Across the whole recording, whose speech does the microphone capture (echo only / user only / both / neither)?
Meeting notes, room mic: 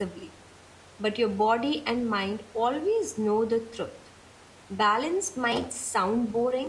user only